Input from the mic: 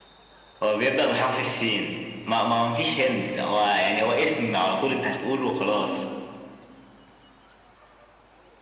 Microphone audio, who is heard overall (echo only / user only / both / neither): echo only